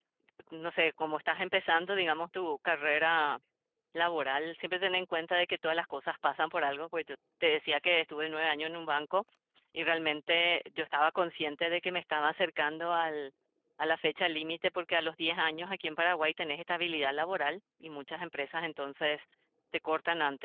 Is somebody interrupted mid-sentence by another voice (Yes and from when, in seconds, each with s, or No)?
No